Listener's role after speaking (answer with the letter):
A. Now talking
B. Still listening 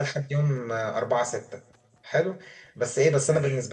B